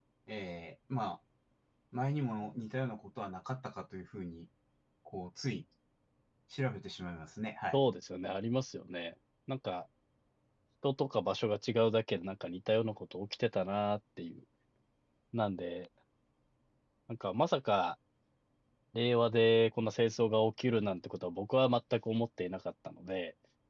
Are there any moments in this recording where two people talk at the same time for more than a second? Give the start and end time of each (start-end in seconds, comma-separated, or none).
none